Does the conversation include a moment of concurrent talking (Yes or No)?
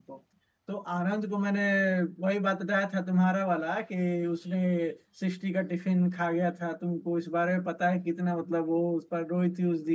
No